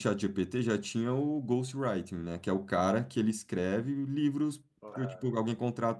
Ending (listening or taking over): listening